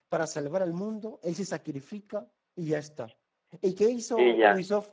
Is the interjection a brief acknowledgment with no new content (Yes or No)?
Yes